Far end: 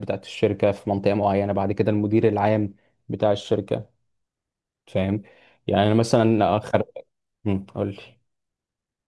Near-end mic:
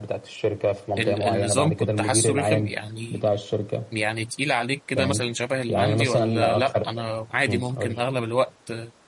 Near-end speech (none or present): present